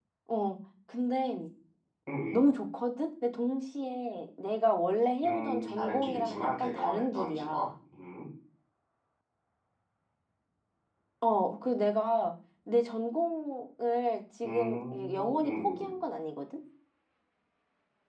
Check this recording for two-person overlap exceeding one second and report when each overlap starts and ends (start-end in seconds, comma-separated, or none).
5.2-7.7, 14.4-15.9